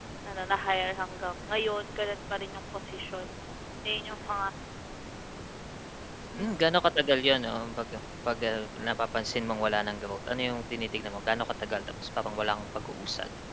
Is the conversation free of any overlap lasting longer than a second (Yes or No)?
Yes